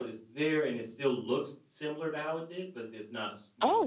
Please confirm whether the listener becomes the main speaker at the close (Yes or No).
Yes